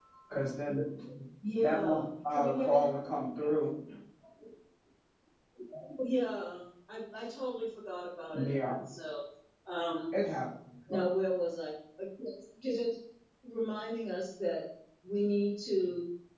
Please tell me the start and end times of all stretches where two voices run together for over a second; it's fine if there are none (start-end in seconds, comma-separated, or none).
1.6-2.9